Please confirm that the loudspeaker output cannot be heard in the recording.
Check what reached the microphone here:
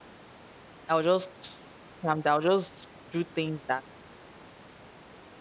Yes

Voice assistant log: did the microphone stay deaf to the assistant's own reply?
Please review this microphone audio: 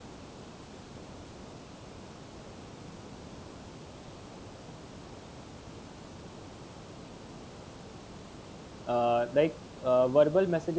Yes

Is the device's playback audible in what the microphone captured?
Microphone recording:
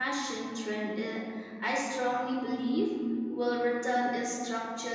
No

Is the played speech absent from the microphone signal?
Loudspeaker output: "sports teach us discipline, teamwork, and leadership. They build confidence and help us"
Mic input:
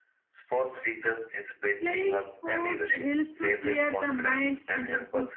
No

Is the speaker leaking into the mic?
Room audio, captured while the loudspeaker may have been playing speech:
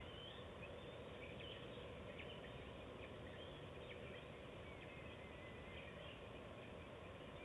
No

